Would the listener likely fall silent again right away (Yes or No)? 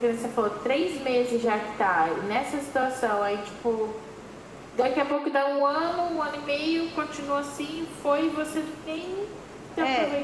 No